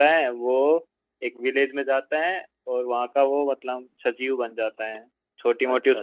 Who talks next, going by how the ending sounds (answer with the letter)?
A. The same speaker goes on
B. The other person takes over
A